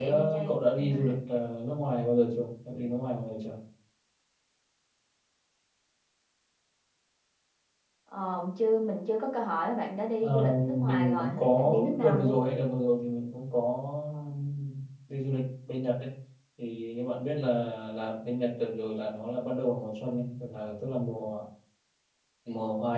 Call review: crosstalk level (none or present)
present